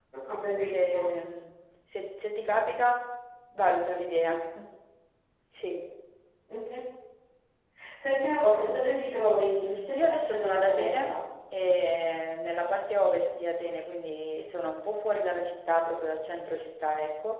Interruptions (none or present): present